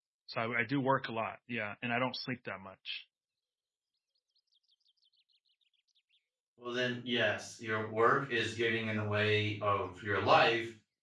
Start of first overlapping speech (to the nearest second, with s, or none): none